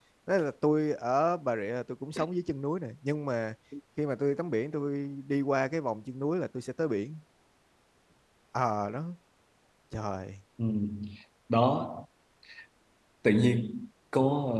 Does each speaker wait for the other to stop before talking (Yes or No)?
Yes